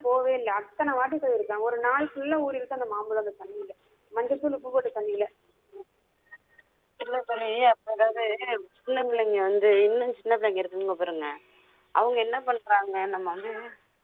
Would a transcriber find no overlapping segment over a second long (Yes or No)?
Yes